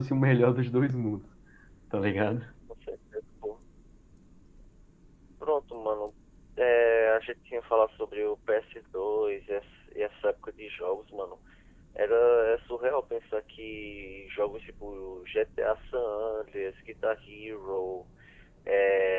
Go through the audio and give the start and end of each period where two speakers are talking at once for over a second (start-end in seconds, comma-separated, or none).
none